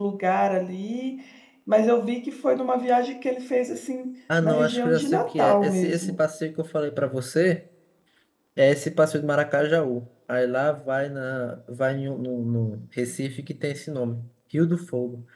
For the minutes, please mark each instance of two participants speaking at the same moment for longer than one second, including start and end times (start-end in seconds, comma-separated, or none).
4.4-6.1